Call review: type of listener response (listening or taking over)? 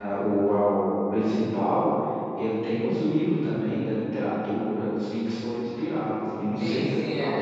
taking over